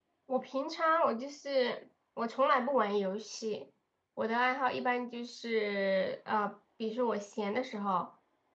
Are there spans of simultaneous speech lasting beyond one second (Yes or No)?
No